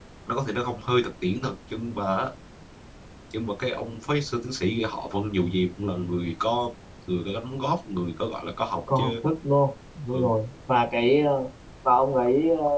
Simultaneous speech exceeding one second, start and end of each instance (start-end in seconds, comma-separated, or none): none